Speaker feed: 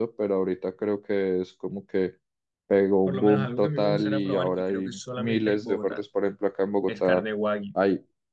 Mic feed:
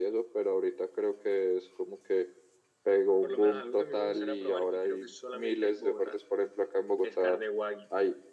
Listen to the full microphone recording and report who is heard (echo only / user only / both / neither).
echo only